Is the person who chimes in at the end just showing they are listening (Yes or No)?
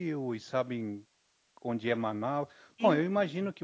Yes